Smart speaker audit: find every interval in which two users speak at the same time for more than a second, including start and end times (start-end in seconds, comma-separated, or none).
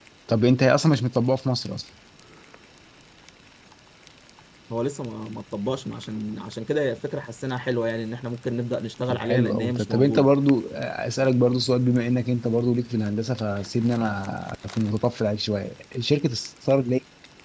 9.1-10.3